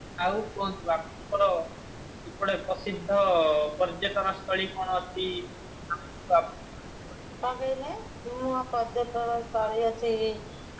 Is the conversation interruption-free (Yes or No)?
Yes